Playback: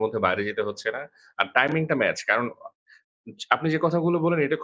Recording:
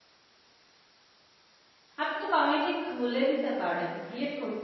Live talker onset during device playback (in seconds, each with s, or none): 2.0 s